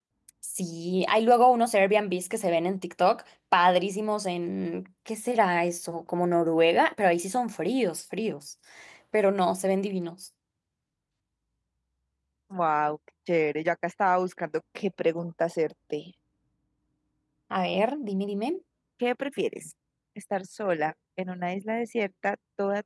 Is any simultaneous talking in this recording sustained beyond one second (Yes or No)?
No